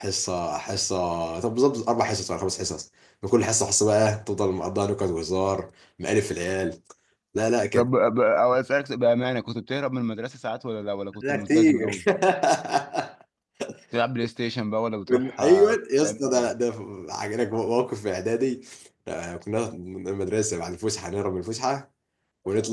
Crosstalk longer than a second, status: present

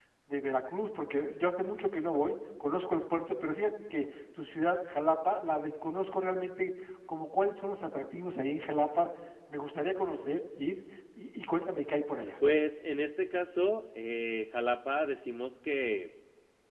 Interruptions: none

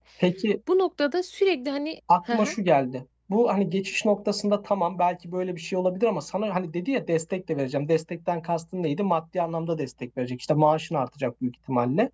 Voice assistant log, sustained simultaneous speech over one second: none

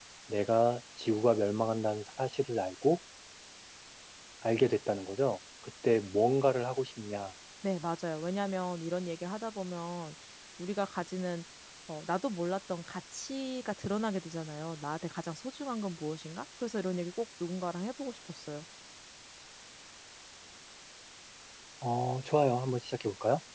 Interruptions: none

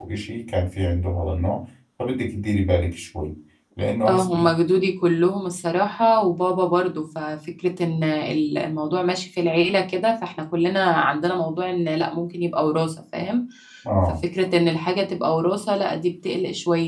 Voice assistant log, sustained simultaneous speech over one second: none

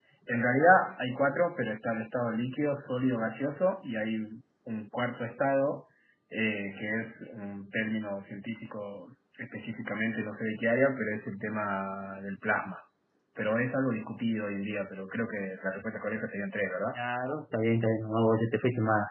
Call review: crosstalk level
none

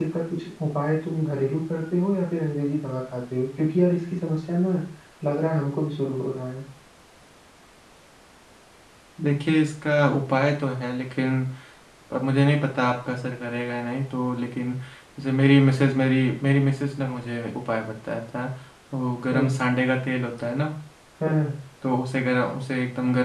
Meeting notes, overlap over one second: none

